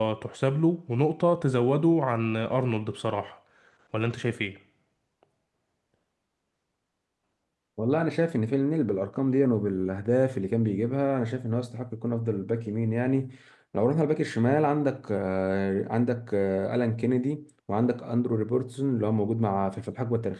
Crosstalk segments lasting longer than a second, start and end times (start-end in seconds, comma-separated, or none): none